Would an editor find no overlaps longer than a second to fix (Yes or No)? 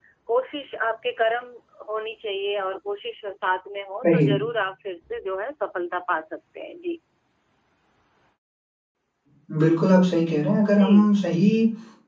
Yes